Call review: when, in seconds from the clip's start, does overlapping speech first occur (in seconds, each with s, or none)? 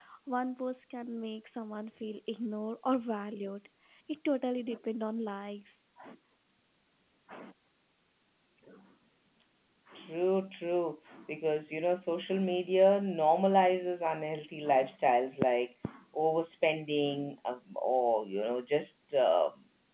none